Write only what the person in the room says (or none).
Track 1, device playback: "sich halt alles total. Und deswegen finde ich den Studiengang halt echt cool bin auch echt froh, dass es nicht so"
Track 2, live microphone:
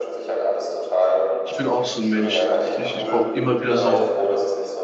ich bin auch so ein Mensch. Ich, ich, ich brauche immer wieder so